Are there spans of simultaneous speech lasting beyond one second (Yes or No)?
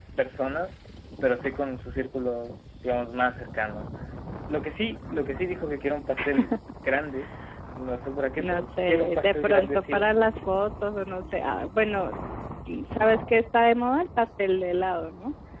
Yes